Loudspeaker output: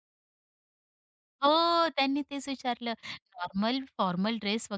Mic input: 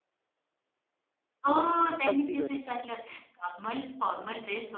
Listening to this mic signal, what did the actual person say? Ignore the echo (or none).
अगदी बरोबर.